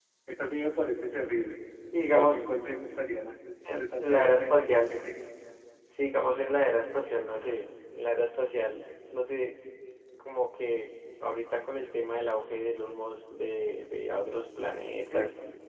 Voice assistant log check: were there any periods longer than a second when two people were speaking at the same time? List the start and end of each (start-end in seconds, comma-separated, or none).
3.8-5.0